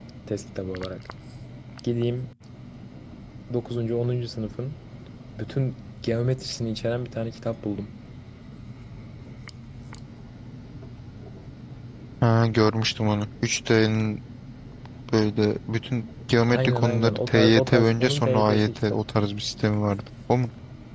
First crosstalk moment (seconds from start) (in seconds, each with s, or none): 16.5 s